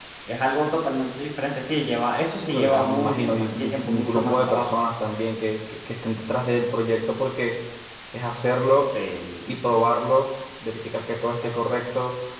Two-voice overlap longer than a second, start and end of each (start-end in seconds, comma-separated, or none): 2.5-4.7